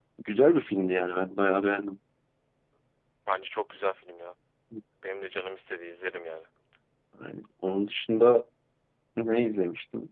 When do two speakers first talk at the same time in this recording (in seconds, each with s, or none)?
none